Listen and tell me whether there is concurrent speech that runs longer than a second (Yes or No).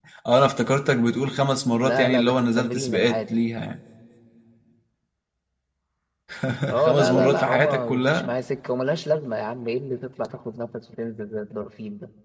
Yes